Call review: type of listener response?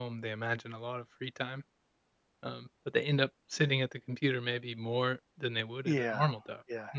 taking over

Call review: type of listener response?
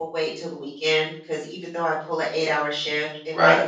listening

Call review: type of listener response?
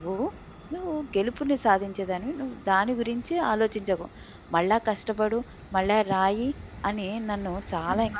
taking over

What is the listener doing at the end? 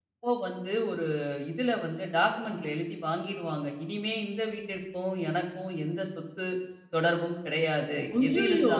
listening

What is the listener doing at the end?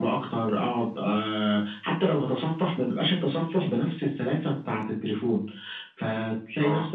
listening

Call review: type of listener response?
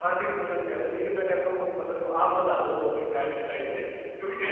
listening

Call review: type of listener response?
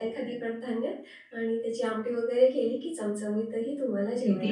taking over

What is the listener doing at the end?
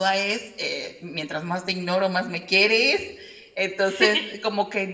listening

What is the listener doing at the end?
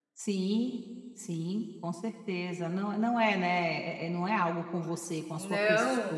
taking over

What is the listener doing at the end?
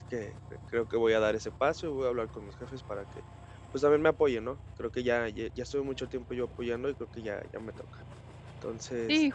taking over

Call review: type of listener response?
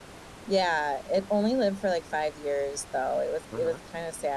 listening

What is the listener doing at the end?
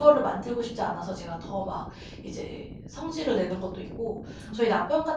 listening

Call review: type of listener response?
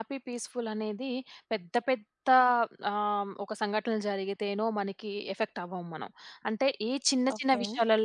listening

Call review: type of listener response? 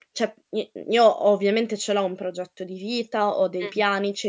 listening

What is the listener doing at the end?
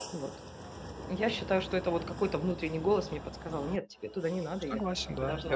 taking over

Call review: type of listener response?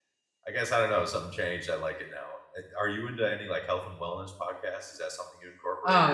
taking over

